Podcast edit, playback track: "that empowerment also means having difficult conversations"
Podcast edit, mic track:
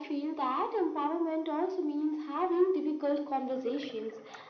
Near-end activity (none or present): none